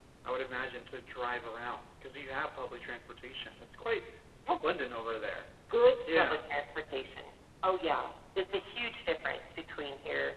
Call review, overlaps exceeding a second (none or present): none